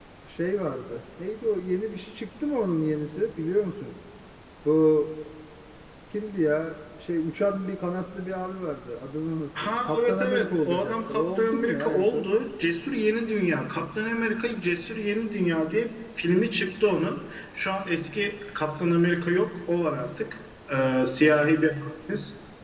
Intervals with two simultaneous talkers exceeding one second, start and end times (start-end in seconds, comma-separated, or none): 9.6-12.3